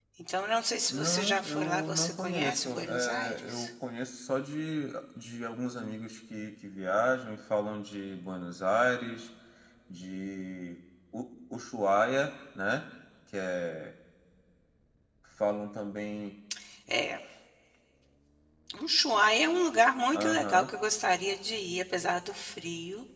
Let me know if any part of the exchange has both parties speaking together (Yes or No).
Yes